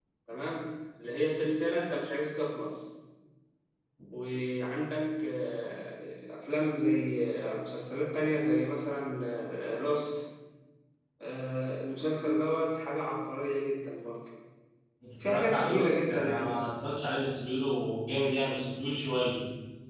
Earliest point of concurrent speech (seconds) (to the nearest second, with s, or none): 15 s